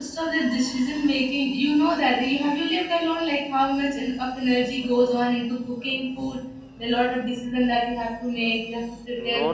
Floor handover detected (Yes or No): Yes